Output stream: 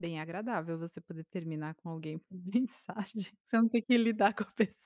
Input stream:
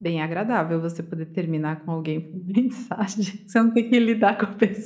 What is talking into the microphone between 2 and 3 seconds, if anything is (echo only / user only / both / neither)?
echo only